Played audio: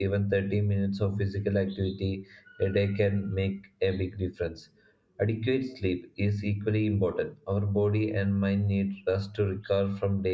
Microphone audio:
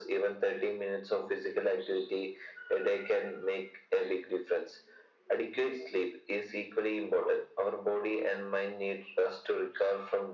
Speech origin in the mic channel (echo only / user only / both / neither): echo only